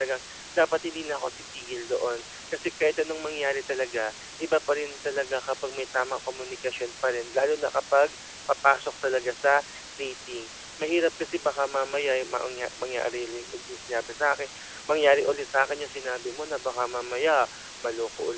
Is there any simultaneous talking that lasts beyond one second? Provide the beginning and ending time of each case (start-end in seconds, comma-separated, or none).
none